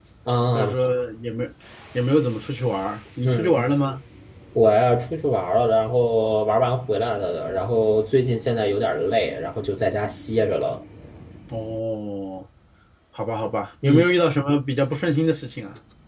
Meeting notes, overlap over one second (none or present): none